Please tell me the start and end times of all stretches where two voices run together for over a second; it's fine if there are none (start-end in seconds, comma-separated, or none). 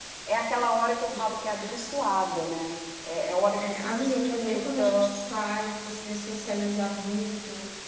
3.6-5.1